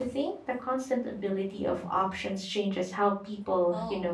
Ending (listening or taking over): taking over